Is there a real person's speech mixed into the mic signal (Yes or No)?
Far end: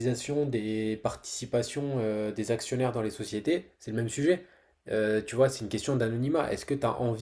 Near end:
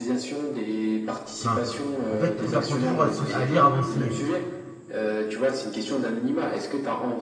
Yes